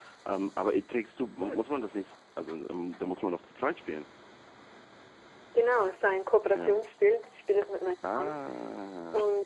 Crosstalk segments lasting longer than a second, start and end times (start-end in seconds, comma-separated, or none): none